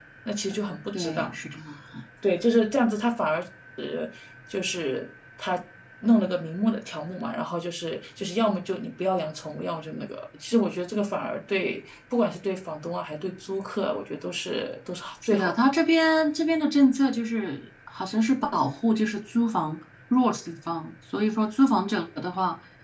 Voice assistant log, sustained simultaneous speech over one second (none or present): none